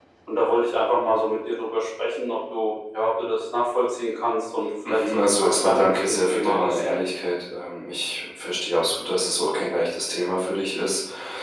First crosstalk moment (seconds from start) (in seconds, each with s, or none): 4.8 s